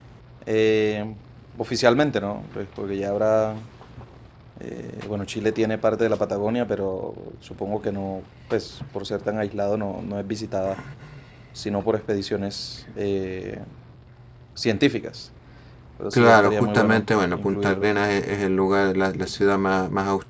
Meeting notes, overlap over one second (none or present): present